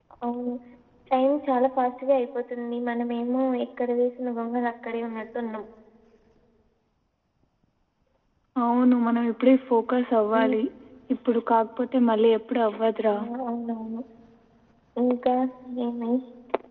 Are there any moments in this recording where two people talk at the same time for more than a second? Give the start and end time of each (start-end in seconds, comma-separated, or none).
none